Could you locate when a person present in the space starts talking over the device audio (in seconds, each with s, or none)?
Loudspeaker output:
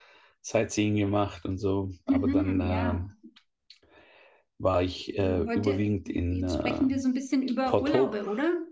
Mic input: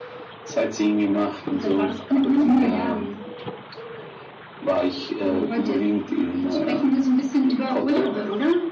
1.5 s